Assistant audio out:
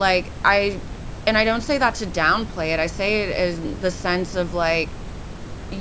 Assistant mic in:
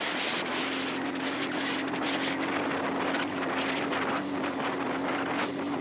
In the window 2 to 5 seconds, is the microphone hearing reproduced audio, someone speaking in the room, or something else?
neither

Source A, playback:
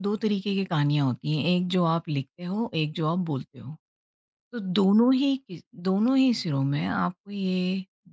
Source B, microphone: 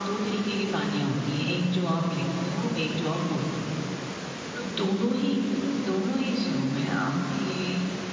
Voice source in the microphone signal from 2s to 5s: echo only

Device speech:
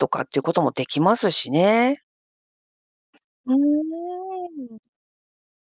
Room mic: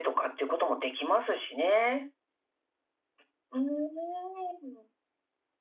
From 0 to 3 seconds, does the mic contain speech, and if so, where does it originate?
echo only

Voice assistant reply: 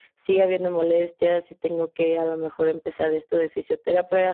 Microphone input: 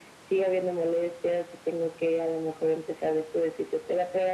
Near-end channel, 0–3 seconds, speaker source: echo only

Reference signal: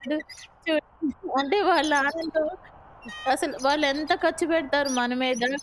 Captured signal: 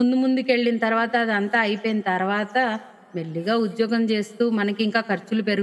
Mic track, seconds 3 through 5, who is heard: user only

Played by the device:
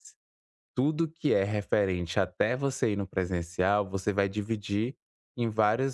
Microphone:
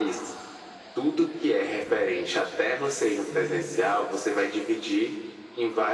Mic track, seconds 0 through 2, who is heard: echo only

